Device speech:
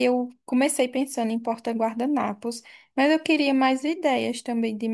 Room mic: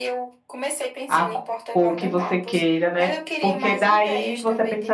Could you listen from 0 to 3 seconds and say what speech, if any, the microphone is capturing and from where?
both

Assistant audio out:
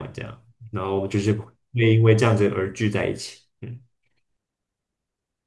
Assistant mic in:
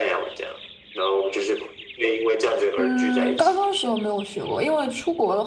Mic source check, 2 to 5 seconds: both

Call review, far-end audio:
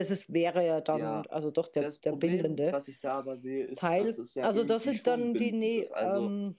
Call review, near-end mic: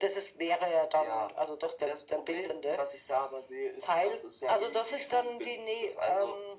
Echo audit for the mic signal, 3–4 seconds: echo only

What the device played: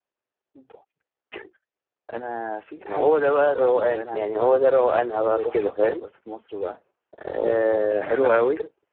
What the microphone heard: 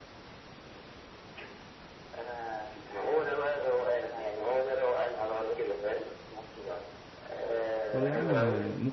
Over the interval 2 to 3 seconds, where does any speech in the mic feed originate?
echo only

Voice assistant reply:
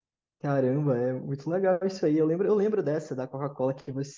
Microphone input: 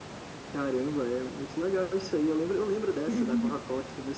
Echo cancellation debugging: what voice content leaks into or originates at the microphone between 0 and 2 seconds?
echo only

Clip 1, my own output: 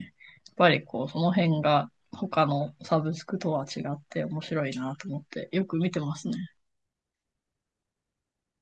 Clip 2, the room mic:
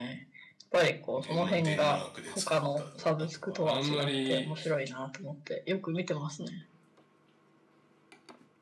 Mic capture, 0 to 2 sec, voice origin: both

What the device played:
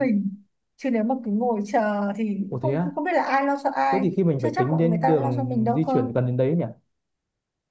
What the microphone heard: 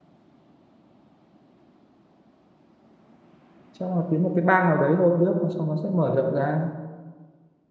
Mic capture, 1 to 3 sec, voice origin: neither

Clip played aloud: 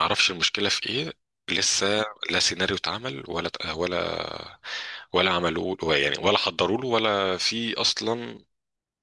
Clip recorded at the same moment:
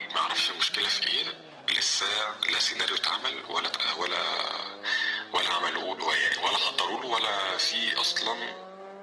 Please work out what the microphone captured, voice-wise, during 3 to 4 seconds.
echo only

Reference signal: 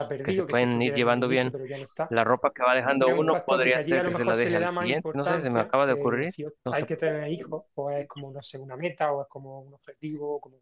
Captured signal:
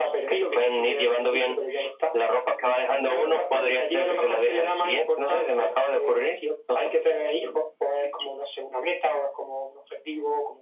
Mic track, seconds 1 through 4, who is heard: echo only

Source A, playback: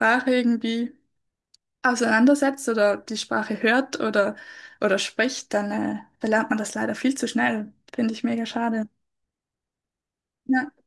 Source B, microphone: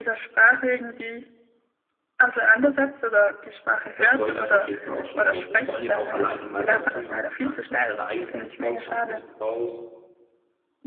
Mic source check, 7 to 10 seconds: both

